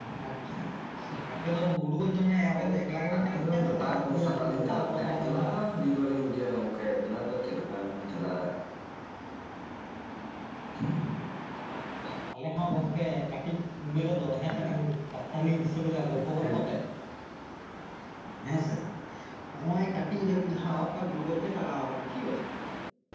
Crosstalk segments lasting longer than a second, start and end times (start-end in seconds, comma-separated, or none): 3.2-5.5